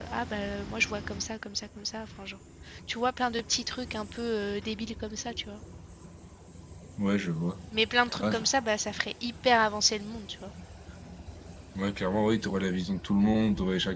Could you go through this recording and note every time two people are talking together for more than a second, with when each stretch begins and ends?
none

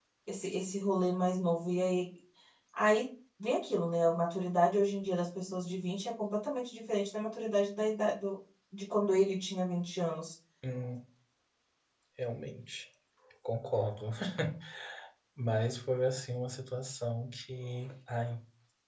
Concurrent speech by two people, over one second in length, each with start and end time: none

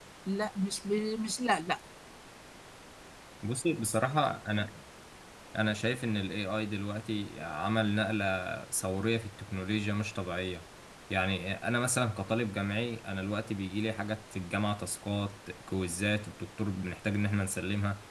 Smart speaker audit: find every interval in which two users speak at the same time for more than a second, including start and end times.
none

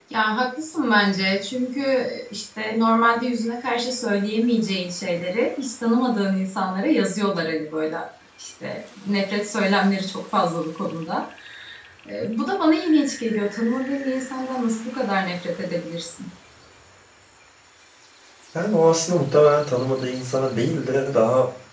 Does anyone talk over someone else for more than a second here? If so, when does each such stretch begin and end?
none

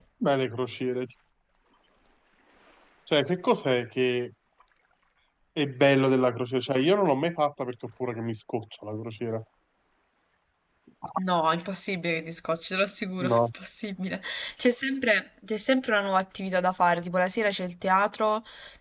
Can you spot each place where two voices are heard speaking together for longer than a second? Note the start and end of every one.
none

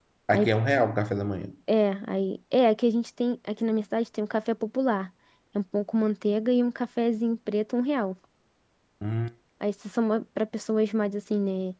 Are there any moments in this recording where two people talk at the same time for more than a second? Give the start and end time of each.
none

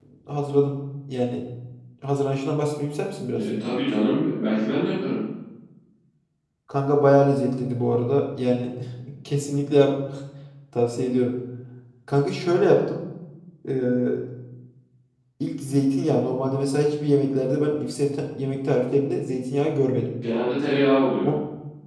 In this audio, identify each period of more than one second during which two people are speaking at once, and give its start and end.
none

